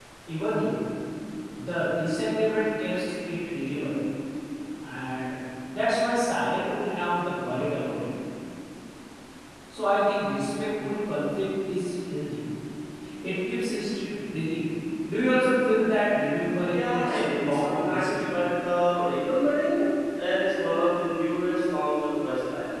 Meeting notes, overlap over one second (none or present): present